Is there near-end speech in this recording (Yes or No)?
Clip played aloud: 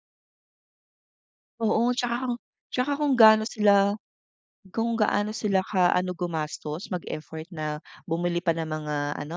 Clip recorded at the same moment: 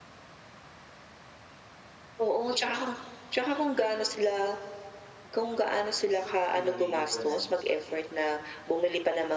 Yes